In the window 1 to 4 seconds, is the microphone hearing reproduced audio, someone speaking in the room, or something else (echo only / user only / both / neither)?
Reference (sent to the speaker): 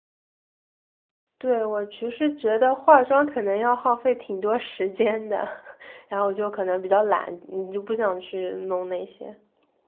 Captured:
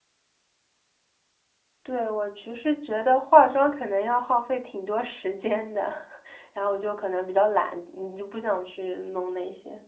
echo only